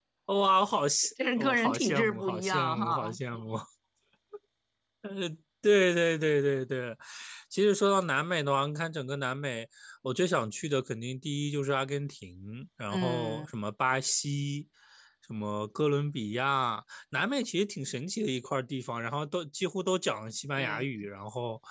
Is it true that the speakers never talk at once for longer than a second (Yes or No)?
No